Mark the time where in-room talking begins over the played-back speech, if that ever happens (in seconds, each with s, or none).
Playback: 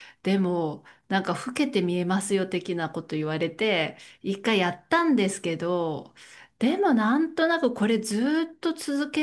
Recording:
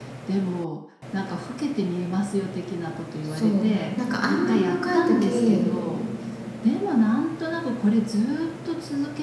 3.2 s